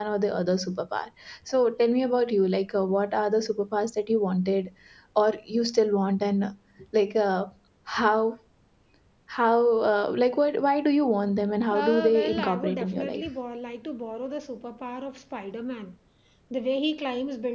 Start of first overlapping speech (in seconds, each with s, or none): 11.7 s